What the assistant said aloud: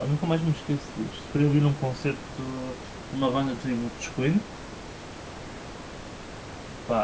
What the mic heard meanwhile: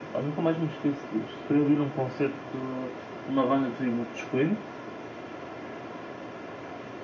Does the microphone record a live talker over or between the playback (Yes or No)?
No